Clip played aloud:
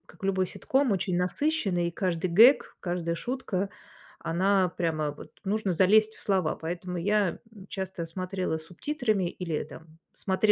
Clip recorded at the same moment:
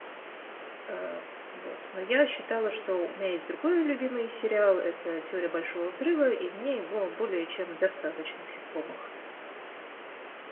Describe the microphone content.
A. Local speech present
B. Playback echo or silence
A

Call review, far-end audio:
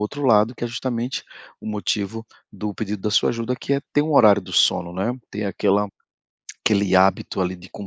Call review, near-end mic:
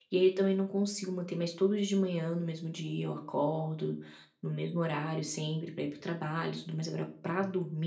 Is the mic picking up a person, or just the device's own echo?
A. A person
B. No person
A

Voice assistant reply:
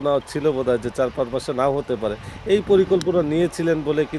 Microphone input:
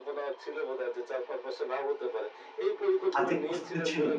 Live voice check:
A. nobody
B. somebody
B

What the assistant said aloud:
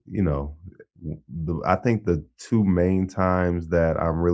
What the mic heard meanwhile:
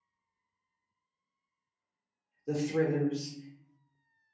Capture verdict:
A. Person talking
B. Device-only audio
A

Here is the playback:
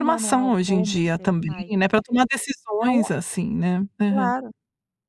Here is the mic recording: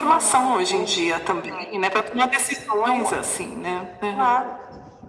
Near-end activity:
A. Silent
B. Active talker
A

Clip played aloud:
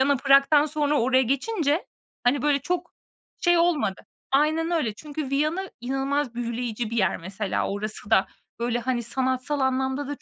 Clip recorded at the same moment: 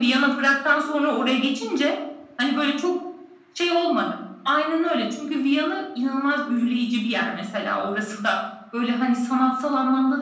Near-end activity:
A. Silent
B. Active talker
A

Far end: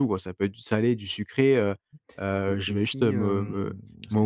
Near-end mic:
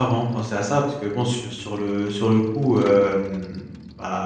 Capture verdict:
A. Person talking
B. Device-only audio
A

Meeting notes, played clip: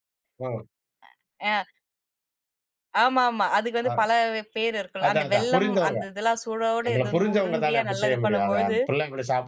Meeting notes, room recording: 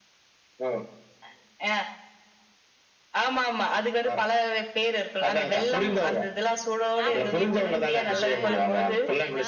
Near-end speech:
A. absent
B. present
B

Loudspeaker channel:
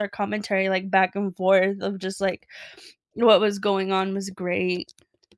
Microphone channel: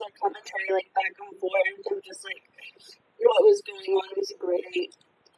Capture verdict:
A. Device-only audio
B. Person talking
A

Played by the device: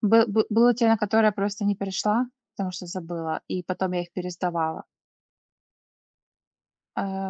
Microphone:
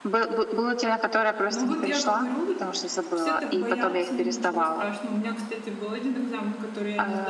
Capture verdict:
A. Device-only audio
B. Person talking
B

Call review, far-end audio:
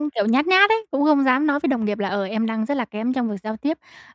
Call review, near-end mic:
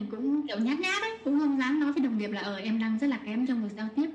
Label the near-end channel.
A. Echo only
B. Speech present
A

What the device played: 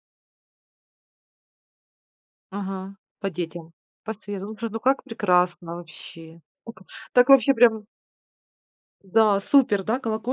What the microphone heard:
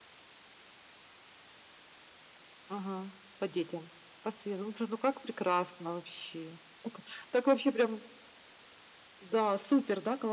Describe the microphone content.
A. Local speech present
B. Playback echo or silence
B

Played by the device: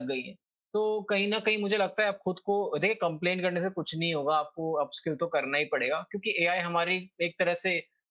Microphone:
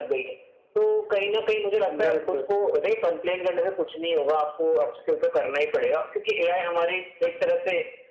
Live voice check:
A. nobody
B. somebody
B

